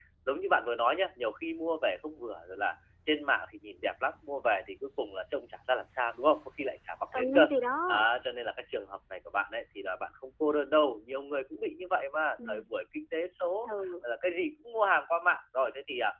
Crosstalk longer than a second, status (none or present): none